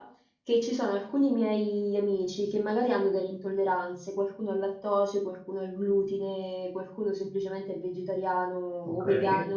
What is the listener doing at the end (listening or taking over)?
listening